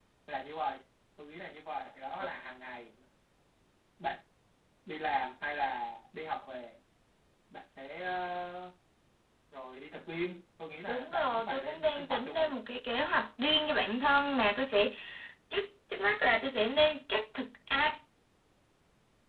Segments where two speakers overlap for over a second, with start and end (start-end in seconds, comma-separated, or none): 10.9-12.5